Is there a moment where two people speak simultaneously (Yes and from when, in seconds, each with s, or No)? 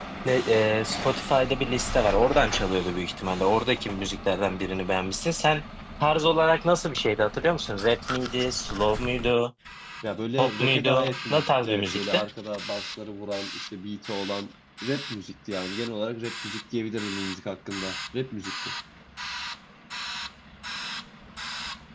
Yes, from 10.4 s